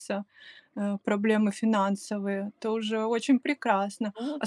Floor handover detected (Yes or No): No